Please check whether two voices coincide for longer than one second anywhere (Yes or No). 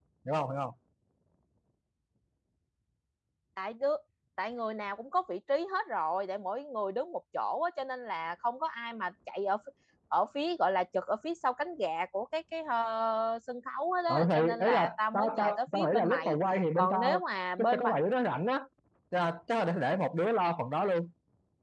Yes